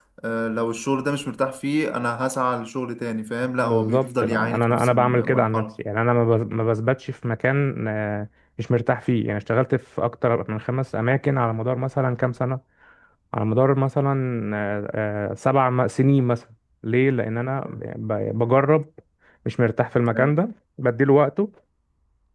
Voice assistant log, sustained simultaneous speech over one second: present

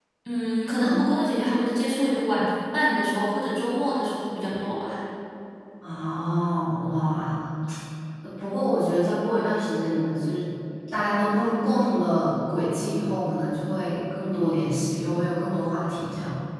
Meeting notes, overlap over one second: none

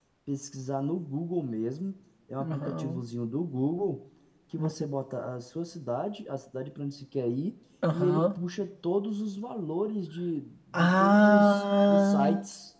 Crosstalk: present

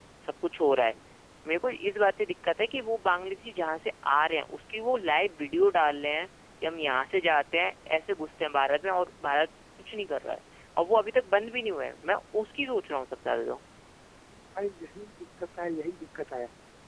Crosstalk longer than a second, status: none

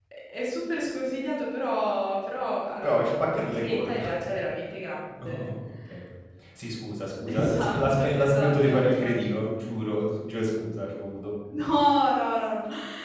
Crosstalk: present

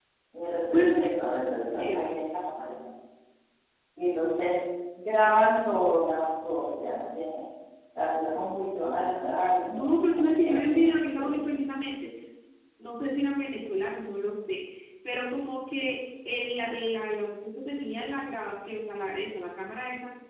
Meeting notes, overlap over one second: present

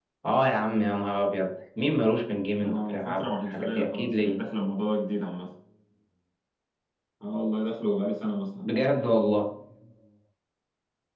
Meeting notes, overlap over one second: present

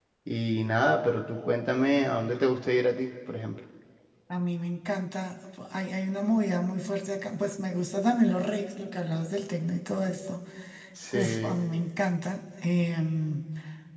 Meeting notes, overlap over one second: none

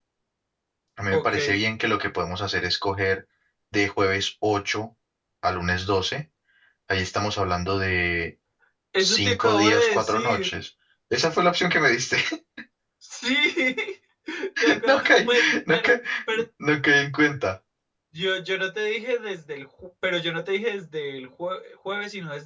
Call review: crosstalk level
present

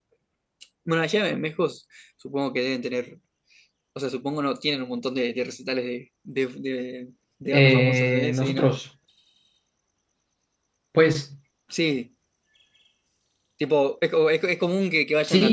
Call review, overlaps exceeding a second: present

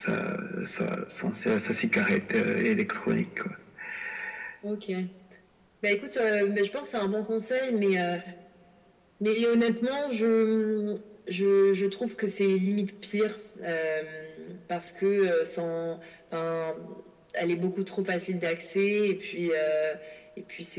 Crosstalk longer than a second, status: none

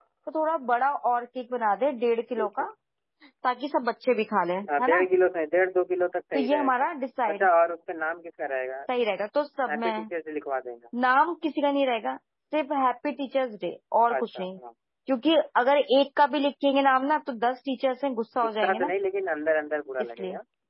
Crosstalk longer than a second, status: none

